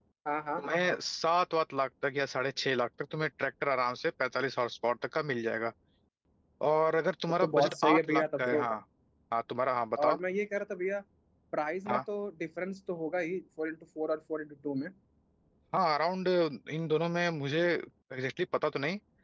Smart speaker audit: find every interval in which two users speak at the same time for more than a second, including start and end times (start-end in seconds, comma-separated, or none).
7.4-8.6